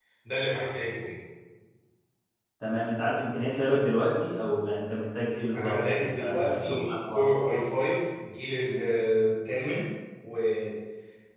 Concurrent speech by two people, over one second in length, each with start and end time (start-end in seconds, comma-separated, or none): 5.5-7.2